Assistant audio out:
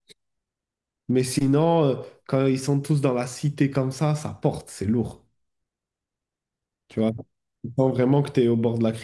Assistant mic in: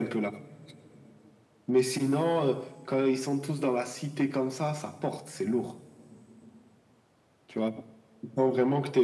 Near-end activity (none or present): none